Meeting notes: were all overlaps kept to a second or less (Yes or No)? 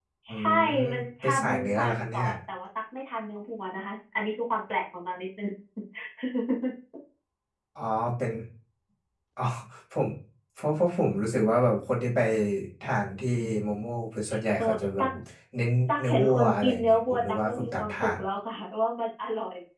No